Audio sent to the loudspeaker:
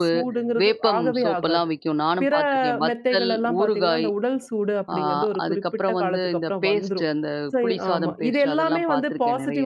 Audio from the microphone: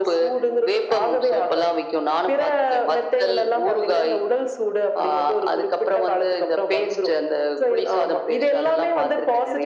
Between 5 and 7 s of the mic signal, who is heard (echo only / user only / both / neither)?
echo only